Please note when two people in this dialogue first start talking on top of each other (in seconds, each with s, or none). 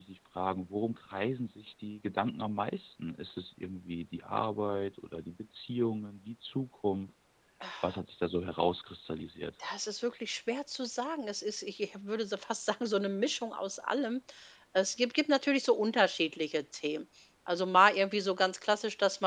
none